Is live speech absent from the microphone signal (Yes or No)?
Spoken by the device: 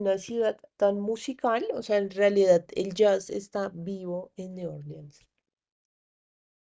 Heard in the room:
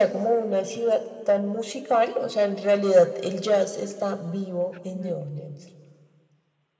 No